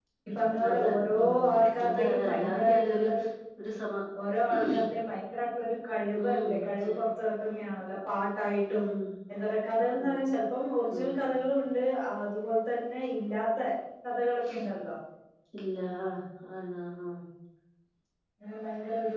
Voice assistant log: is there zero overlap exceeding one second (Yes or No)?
No